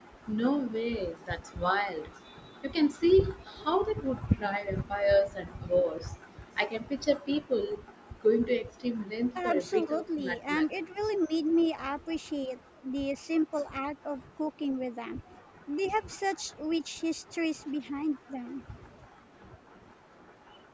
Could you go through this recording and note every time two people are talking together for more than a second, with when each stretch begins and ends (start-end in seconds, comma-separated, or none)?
9.4-10.6